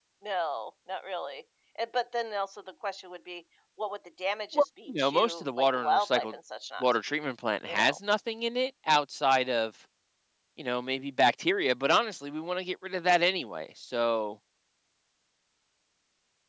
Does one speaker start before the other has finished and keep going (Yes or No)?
Yes